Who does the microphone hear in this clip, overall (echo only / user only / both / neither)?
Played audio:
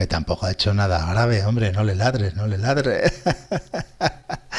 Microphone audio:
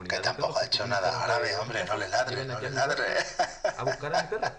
both